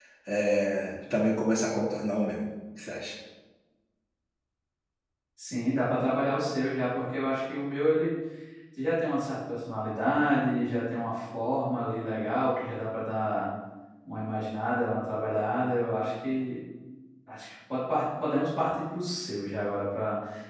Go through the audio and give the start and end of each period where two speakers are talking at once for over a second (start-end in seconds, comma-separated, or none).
none